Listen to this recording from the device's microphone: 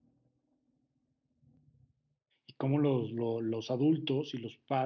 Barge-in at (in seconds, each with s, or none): 2.4 s